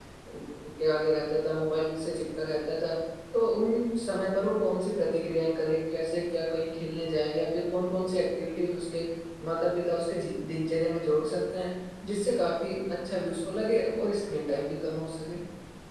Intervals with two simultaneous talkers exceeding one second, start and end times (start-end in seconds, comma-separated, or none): none